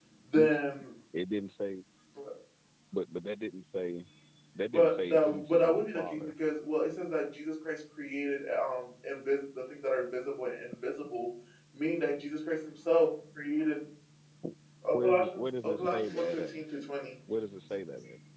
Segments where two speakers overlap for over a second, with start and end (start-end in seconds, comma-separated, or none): 4.7-6.2, 14.9-16.6